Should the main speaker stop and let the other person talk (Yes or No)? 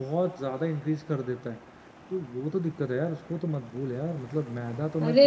No